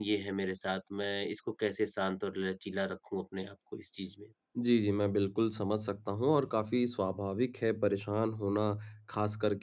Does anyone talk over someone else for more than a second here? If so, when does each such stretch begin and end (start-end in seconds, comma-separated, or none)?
none